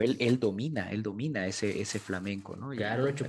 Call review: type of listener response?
taking over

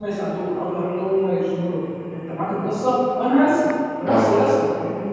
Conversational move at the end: listening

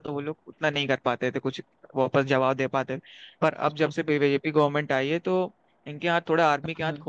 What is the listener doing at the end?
listening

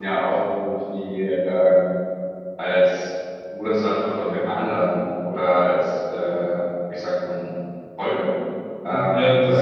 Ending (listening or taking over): taking over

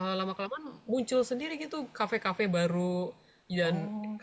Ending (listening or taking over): listening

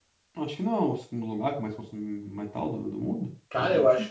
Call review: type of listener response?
taking over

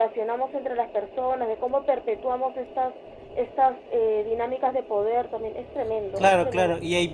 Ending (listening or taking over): taking over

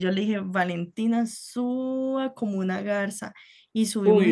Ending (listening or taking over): taking over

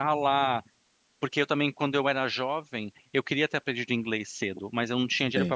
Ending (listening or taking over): listening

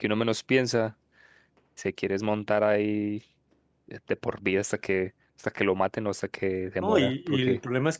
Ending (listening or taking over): taking over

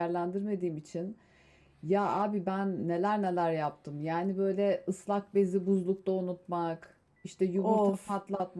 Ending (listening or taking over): listening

